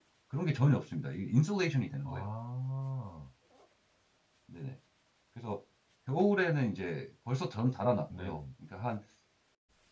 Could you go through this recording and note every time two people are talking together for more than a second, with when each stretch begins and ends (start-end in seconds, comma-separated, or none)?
none